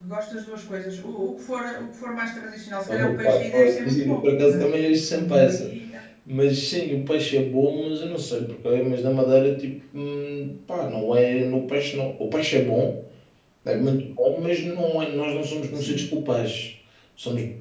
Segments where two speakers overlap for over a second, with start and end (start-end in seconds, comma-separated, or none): 2.9-5.7